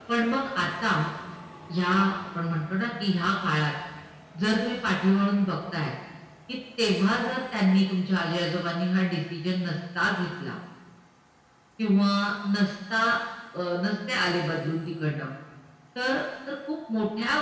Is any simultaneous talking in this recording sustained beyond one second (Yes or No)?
No